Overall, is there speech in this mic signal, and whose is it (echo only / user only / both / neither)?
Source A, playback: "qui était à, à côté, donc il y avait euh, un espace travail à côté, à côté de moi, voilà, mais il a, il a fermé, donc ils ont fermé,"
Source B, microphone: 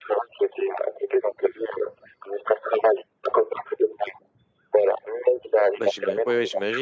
both